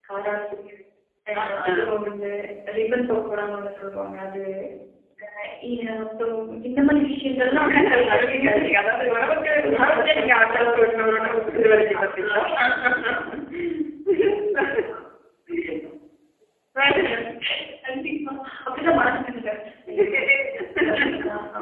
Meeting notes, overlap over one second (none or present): present